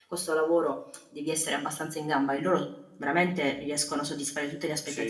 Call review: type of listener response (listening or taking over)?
taking over